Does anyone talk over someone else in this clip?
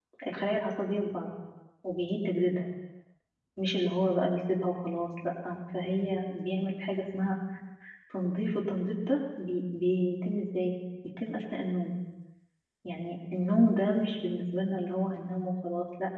No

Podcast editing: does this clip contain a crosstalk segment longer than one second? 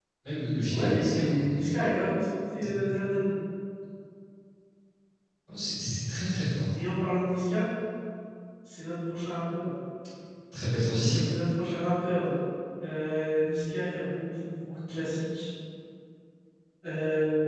Yes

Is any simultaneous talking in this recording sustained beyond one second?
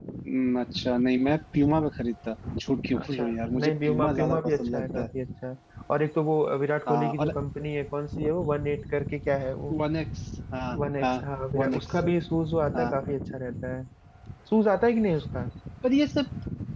Yes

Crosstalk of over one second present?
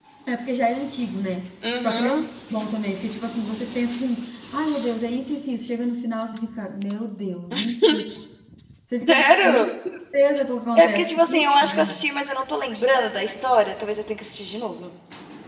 Yes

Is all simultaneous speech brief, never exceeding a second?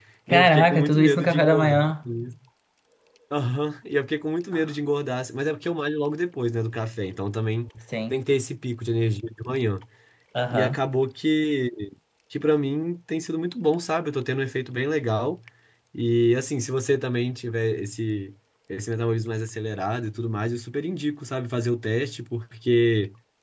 No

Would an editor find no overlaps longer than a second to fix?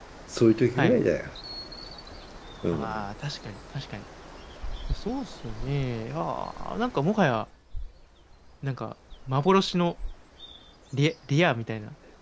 Yes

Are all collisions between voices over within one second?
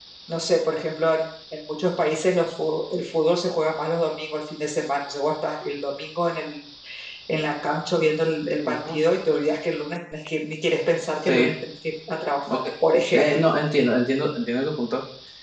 Yes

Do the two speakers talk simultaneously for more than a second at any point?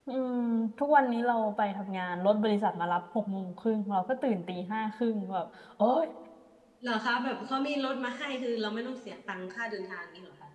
No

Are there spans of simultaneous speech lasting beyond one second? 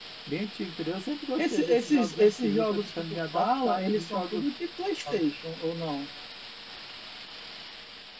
Yes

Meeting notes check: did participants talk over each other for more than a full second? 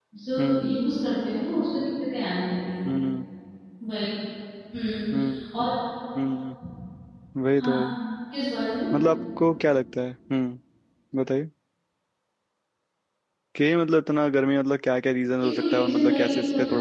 Yes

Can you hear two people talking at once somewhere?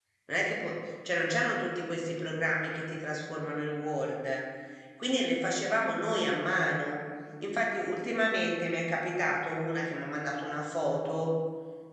No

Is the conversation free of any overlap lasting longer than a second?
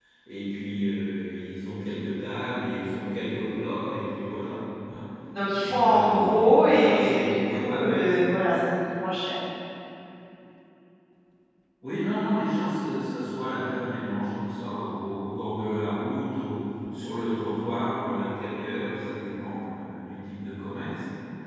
No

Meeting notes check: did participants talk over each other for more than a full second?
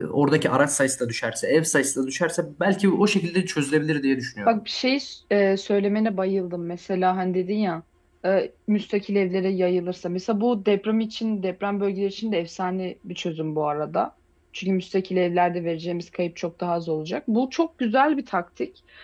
No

